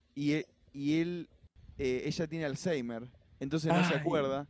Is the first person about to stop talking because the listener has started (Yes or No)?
No